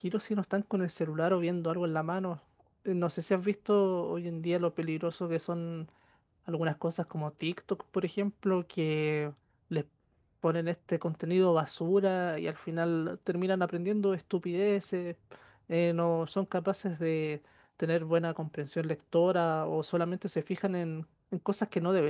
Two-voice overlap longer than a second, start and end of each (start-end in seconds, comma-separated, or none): none